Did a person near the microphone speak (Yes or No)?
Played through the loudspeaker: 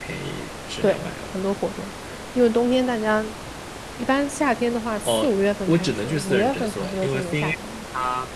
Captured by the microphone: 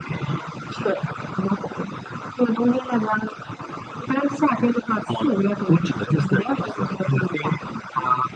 No